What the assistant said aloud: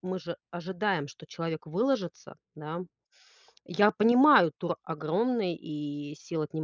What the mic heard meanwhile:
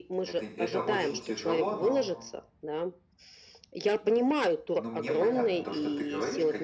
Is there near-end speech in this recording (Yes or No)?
Yes